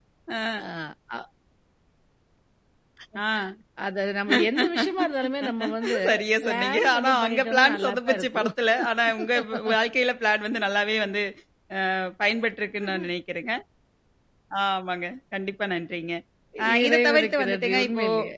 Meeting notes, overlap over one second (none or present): present